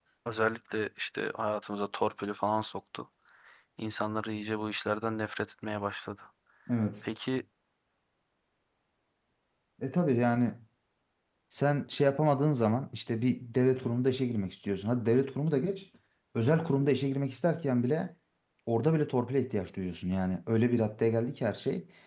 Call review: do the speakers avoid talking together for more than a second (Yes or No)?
Yes